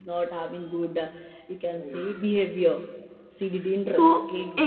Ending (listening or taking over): taking over